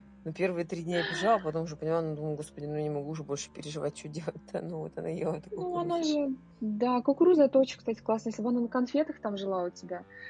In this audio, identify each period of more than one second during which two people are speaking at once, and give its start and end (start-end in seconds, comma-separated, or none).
none